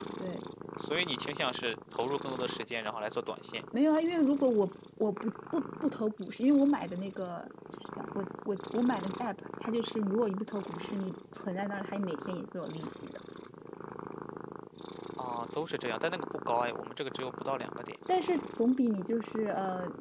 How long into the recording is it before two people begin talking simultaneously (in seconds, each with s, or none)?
none